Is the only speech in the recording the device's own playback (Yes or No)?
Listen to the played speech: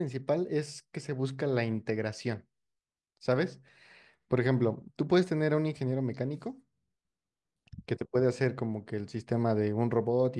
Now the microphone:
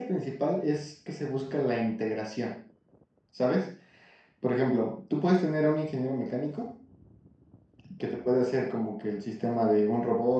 Yes